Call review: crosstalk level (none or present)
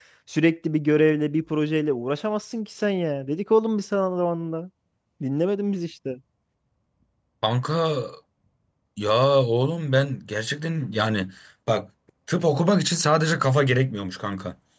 none